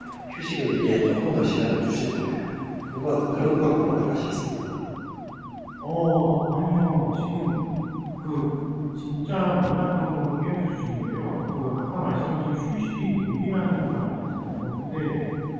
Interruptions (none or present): none